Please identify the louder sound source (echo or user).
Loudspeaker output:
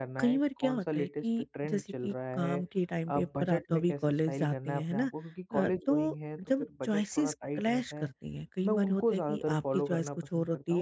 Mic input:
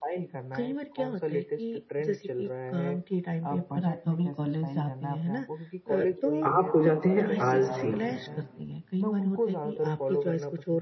user